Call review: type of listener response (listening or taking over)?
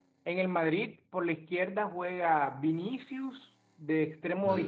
listening